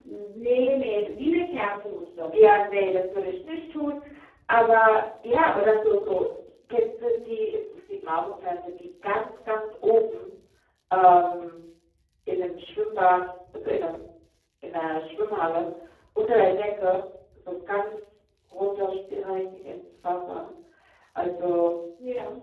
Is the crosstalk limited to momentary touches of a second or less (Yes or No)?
Yes